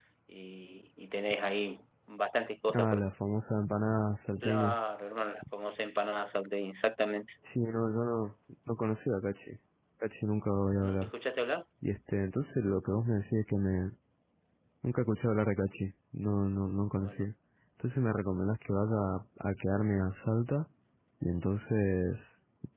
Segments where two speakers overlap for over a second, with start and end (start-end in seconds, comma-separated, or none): none